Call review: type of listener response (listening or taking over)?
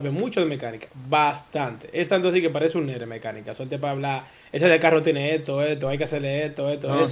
taking over